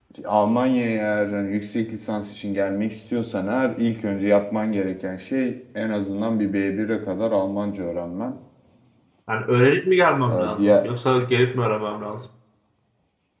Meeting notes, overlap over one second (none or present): none